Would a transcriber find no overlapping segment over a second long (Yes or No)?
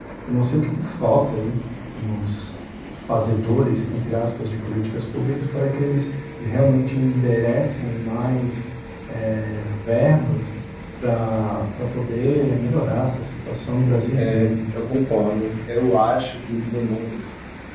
Yes